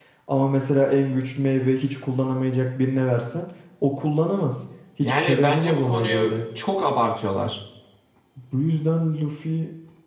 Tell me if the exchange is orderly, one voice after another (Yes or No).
No